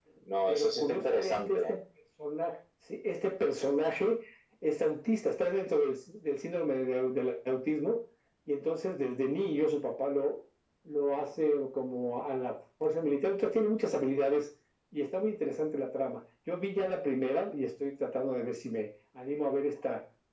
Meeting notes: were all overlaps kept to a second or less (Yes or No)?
No